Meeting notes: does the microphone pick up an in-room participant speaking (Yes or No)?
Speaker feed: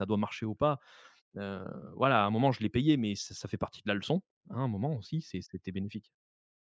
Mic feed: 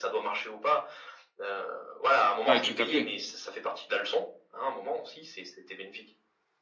Yes